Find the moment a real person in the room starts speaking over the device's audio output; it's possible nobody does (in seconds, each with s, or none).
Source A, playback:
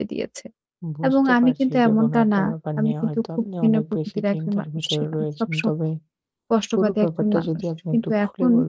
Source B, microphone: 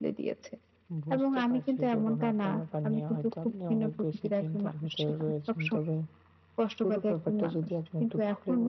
none